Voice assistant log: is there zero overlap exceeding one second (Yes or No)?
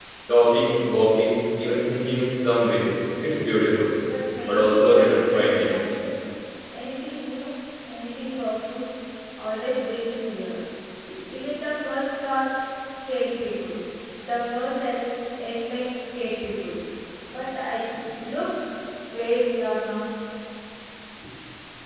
No